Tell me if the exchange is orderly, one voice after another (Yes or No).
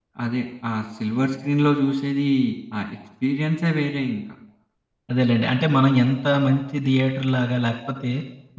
Yes